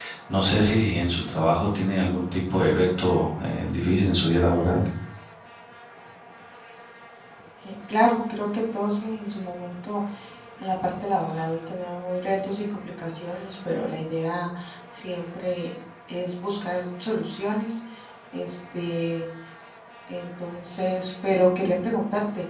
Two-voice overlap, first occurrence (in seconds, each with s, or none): none